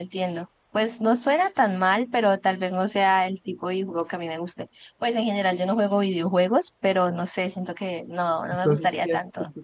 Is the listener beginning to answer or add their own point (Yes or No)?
Yes